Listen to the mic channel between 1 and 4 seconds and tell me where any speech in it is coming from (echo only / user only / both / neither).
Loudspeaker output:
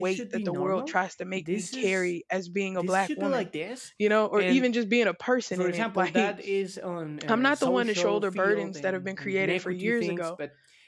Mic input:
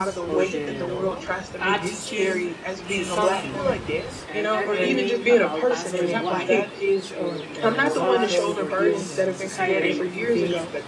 both